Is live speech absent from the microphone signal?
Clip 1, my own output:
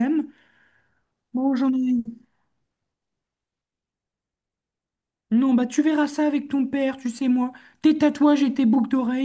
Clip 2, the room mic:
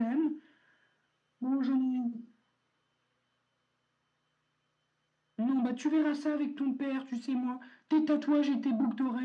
Yes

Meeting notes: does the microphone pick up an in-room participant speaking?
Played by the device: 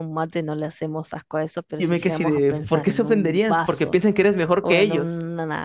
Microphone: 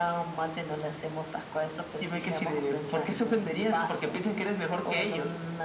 No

